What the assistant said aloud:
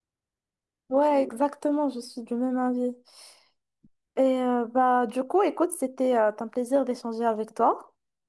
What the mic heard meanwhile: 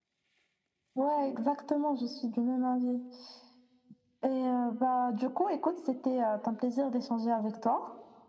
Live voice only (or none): none